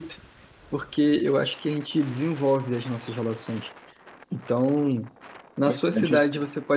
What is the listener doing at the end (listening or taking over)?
listening